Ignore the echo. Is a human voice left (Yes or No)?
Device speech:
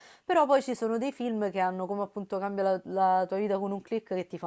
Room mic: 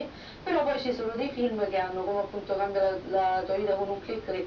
No